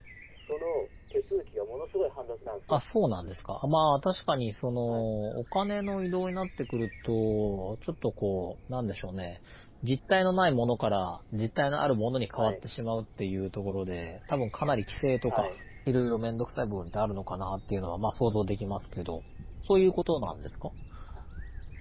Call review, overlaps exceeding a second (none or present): none